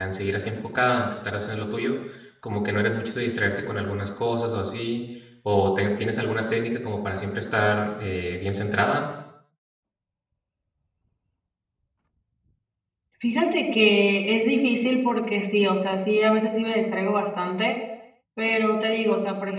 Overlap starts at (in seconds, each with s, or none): none